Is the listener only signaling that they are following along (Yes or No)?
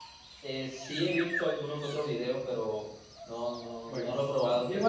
No